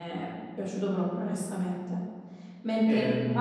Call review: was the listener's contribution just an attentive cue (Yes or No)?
Yes